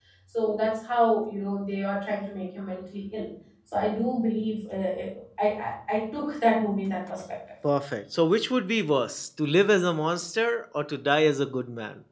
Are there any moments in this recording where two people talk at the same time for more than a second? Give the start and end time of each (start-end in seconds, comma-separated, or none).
none